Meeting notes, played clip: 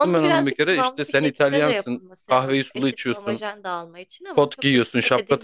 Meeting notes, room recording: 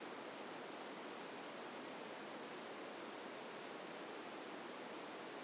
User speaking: No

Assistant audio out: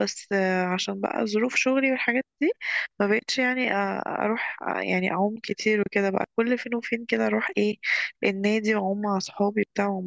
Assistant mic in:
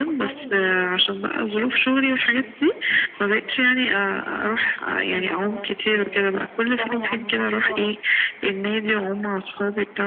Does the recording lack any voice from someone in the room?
No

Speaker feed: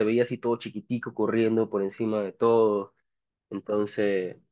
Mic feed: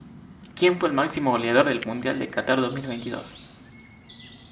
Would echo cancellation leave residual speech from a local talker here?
Yes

